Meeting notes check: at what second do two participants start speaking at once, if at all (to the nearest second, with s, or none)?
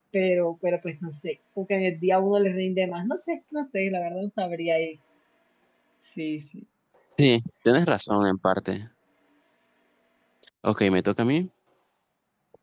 none